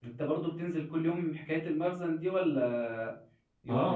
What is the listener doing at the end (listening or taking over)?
taking over